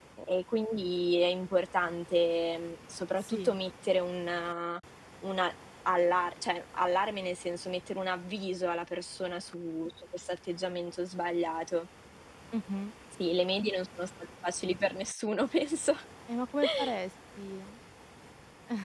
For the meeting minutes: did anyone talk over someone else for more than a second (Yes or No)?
No